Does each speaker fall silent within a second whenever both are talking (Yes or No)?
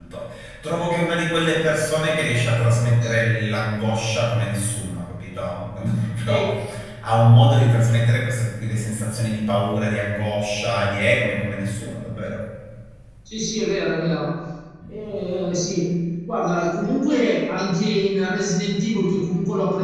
Yes